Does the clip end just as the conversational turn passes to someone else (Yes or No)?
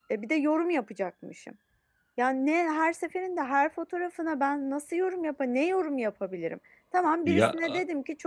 No